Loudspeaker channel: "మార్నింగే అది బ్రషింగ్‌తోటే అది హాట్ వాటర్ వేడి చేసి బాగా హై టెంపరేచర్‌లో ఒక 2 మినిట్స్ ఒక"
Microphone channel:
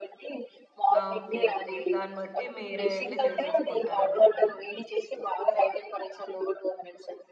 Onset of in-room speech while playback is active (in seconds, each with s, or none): 1.0 s